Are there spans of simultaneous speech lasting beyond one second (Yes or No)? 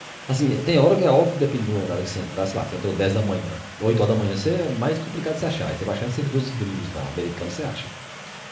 No